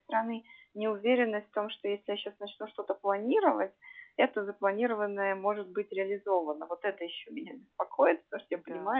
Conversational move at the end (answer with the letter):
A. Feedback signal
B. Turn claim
A